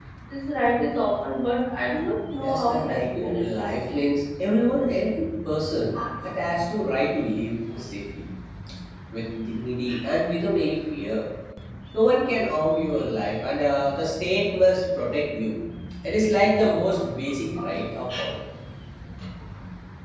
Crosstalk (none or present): present